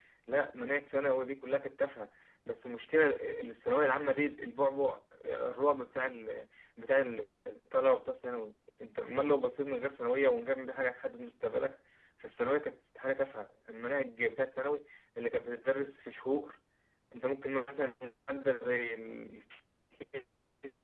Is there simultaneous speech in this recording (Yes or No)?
No